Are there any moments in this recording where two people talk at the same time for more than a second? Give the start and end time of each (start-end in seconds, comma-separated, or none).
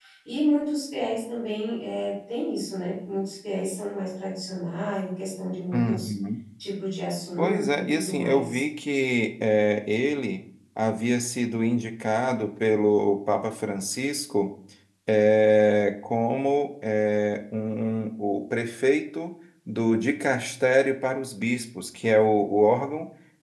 7.4-8.6